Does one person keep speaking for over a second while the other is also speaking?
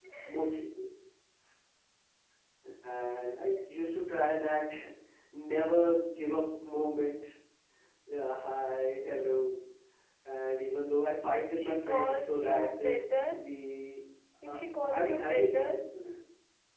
Yes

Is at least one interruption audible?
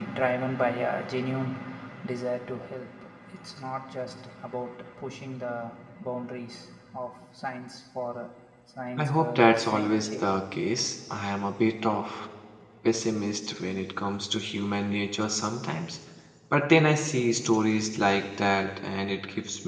Yes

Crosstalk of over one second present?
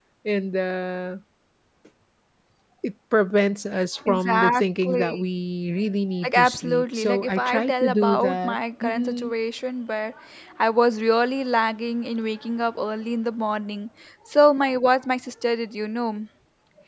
Yes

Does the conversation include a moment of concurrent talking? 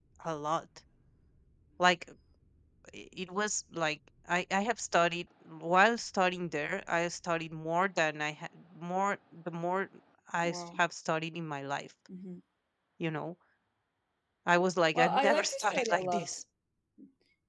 Yes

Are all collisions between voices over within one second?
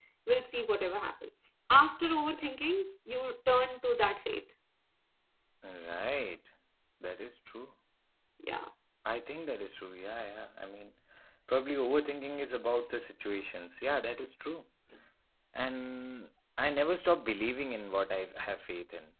Yes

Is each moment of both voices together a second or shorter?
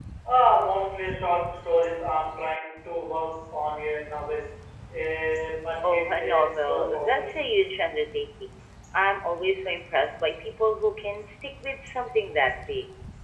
No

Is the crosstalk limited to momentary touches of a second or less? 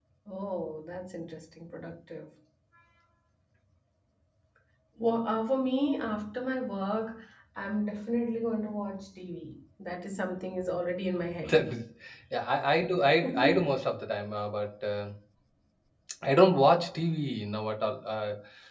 Yes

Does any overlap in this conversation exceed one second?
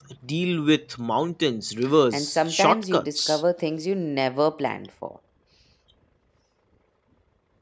Yes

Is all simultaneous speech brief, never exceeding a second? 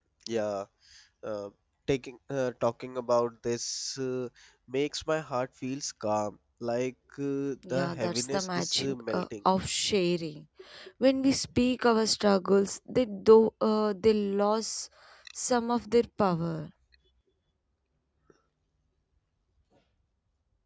No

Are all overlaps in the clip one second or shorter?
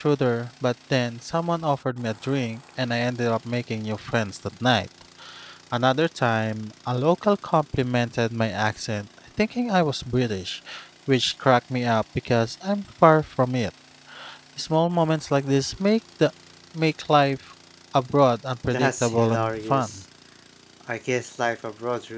No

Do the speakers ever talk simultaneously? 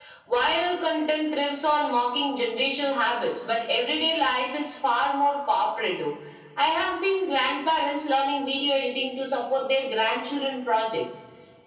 No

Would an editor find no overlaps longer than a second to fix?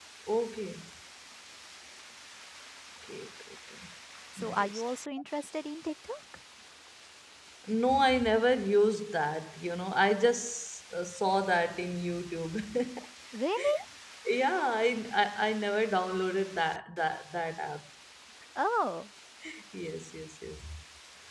Yes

